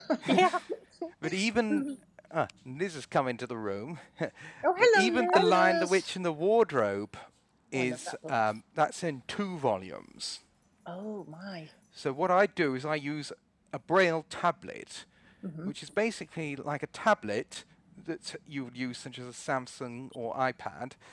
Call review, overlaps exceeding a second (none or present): present